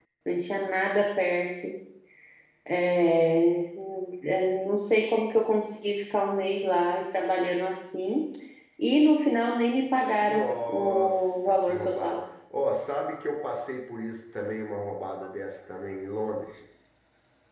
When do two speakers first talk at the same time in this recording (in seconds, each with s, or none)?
10.2 s